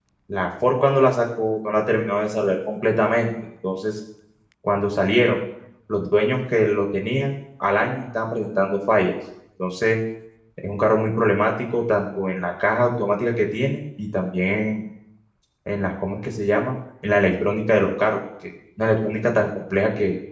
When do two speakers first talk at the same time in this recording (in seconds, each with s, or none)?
none